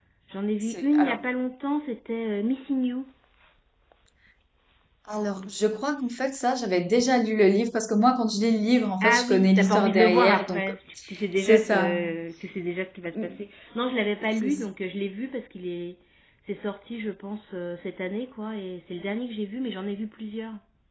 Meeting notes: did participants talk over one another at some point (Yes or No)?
Yes